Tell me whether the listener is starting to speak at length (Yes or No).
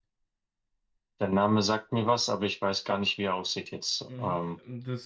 Yes